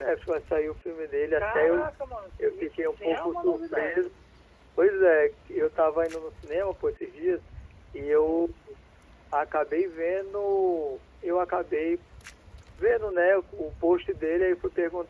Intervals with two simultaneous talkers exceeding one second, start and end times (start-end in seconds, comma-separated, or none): 2.4-4.1